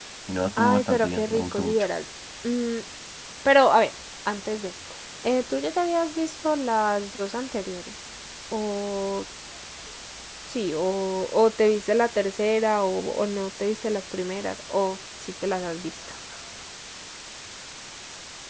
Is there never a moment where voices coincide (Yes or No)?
No